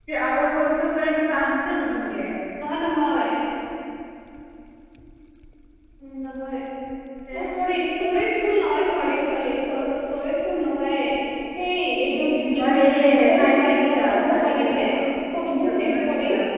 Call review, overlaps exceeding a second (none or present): present